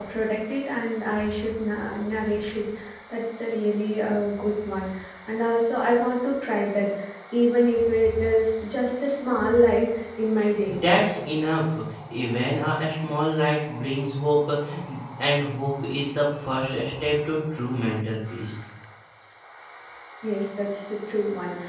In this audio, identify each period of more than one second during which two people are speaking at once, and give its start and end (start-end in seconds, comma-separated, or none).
none